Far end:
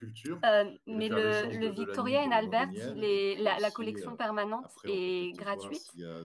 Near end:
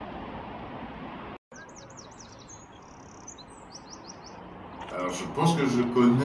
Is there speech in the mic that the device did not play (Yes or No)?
Yes